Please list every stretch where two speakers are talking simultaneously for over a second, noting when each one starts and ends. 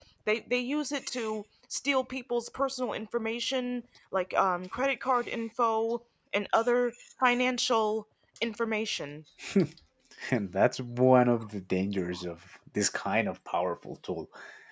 none

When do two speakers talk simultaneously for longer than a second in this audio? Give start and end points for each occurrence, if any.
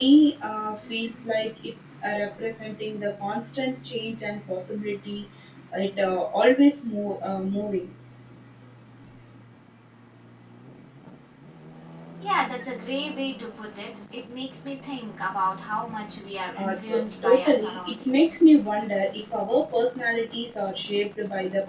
16.6-18.3

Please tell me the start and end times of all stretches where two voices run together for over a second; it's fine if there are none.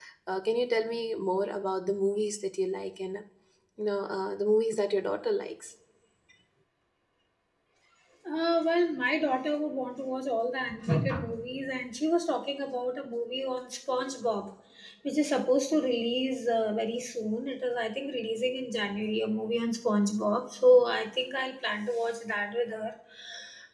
none

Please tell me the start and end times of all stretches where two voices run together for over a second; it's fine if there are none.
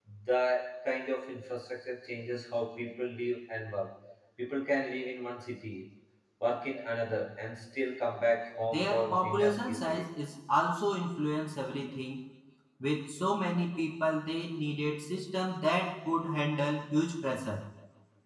8.6-10.1

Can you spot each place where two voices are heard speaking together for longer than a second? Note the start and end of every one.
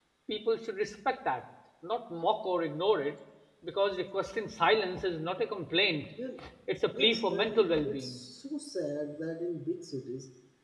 7.0-8.2

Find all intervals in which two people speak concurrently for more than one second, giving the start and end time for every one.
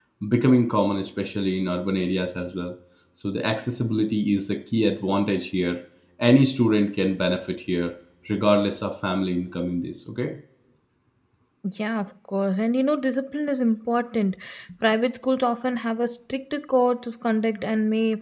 none

